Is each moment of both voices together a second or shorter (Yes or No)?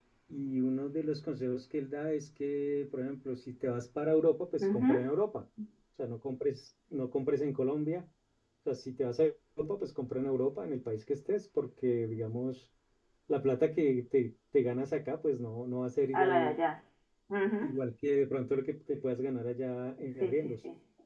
Yes